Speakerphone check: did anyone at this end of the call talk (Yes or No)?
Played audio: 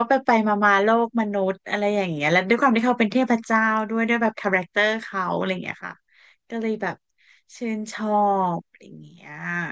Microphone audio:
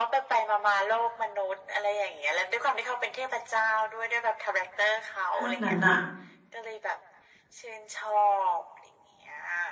Yes